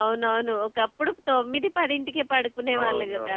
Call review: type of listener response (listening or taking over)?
taking over